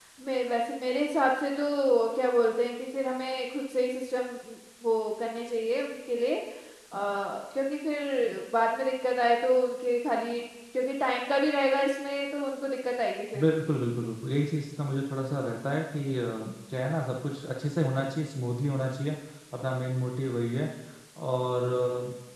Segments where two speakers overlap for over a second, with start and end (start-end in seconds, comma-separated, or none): none